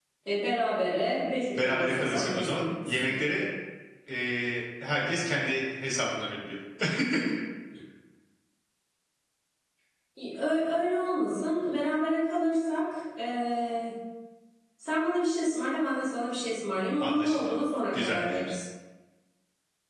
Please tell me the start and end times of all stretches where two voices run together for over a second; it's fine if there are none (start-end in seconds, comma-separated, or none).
1.6-3.2